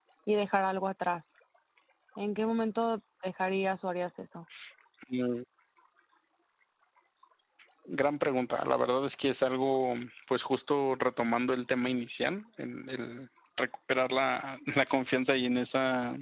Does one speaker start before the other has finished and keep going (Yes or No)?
No